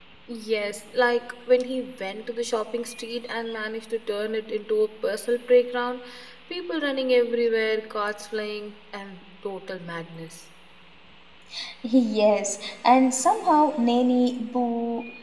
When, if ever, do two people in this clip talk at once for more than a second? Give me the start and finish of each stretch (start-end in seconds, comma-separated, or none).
none